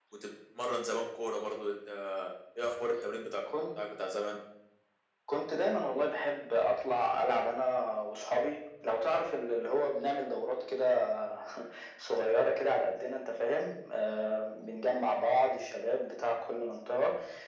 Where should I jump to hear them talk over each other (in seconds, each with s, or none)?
none